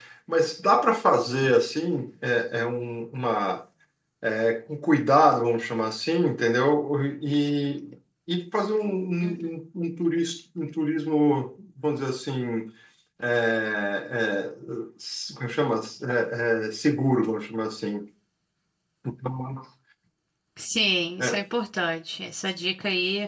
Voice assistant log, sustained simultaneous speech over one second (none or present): none